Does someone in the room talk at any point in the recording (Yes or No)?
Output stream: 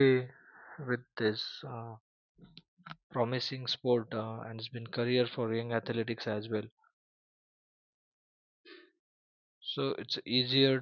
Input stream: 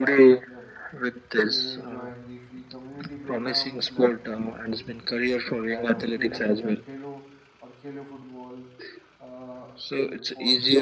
Yes